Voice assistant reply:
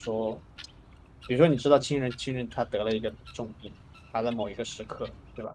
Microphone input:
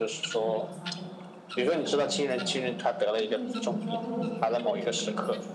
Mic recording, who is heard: both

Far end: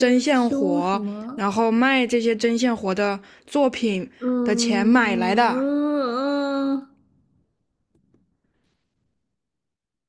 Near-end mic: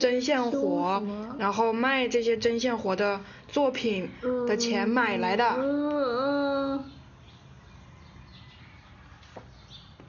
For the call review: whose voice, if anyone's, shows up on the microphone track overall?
echo only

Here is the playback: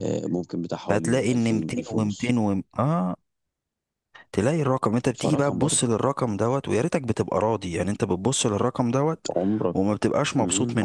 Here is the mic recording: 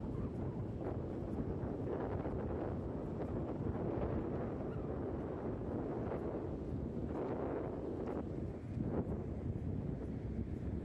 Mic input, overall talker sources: neither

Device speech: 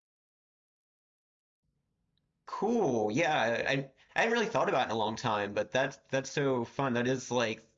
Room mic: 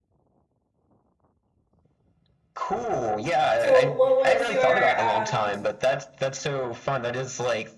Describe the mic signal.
both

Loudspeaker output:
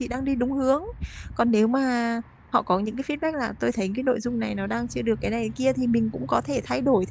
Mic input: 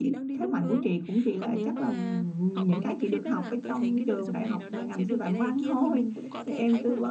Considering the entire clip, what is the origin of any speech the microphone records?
both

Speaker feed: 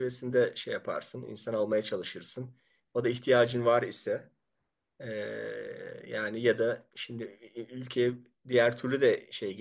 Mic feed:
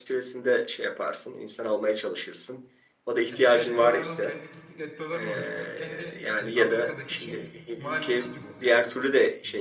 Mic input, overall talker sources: both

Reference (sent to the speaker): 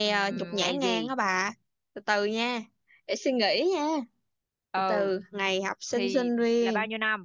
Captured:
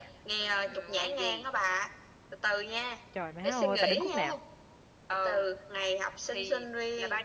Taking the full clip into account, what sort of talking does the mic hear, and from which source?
both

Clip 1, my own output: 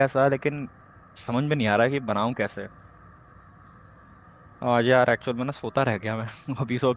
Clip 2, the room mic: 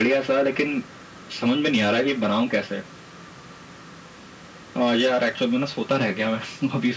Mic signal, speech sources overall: echo only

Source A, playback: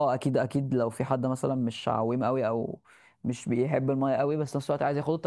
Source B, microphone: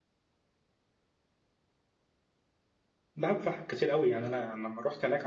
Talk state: user only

